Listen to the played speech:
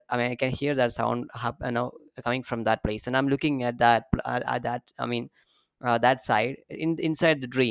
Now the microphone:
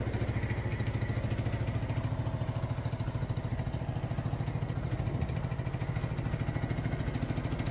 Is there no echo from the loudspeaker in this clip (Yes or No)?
Yes